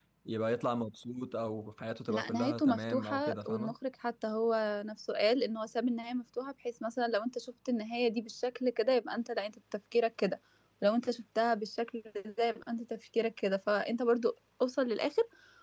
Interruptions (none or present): present